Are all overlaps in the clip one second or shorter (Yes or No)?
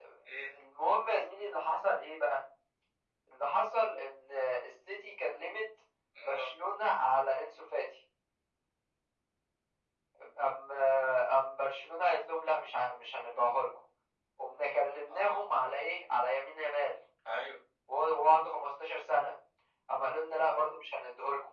Yes